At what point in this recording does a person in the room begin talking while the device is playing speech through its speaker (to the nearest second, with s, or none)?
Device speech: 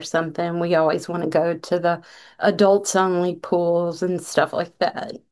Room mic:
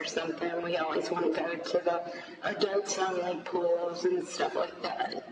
none